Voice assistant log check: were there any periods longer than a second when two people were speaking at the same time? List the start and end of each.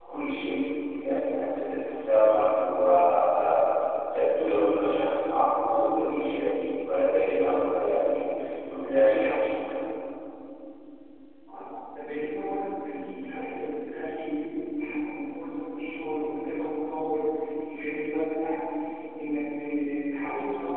none

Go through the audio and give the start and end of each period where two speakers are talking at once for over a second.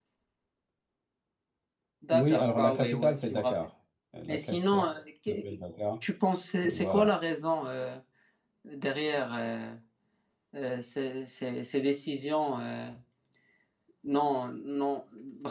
2.1-3.5

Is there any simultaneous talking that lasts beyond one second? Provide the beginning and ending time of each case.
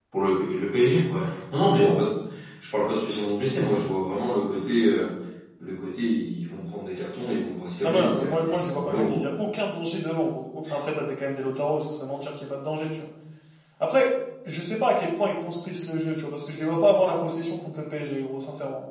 7.8-9.3

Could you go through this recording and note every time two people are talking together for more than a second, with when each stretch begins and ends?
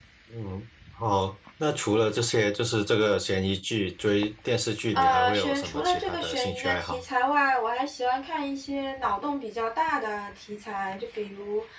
4.9-7.0

